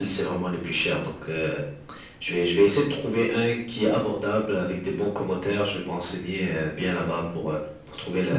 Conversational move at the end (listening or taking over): taking over